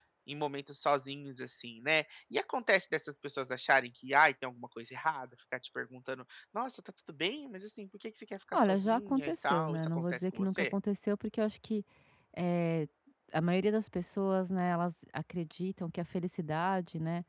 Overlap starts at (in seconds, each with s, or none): 8.5 s